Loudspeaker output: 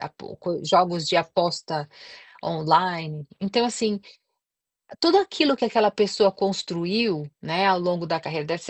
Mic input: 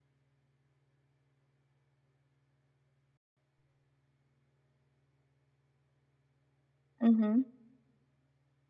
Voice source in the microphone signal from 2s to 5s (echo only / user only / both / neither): neither